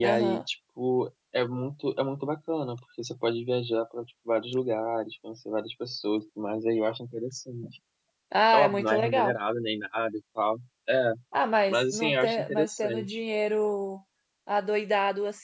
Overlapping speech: Yes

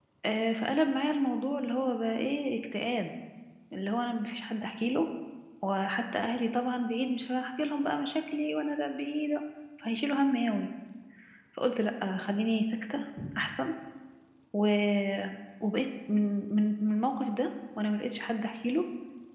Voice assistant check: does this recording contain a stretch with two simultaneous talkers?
No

